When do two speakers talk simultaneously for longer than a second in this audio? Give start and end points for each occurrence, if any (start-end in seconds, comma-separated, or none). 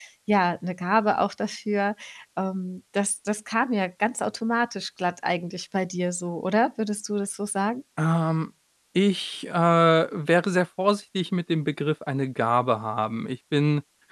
none